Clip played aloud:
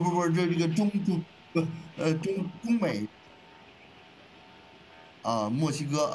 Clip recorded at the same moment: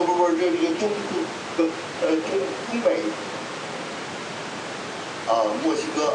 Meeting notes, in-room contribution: none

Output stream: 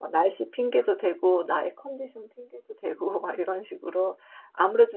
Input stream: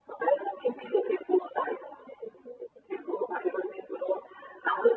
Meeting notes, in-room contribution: none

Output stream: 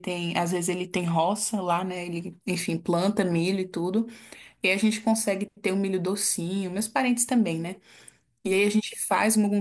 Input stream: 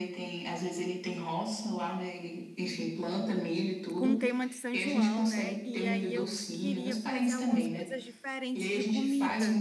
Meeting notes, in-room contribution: present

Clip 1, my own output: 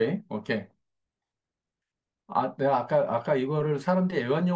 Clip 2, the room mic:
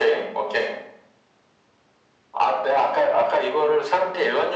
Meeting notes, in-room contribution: none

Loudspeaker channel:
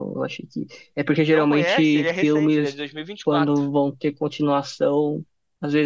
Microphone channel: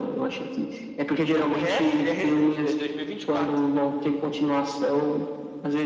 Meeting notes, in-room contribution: none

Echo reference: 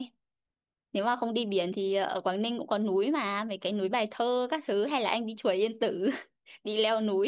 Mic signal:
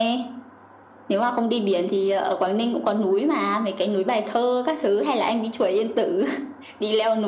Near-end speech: none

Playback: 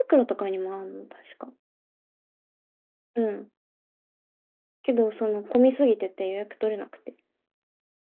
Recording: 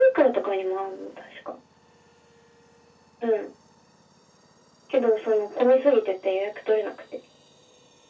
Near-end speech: none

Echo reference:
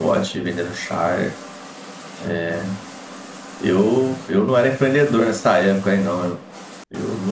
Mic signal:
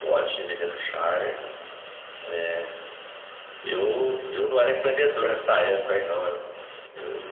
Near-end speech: none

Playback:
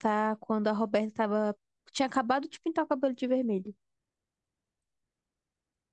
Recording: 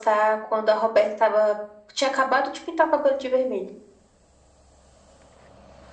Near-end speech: none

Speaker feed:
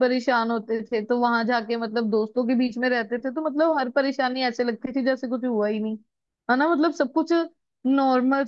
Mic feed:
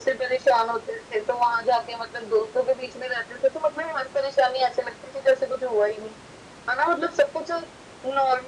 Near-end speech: none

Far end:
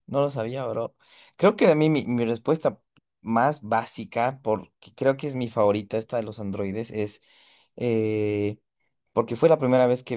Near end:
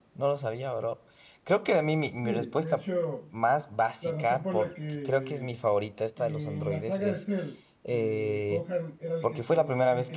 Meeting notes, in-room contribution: present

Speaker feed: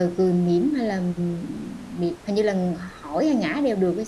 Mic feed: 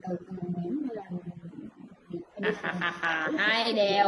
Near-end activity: present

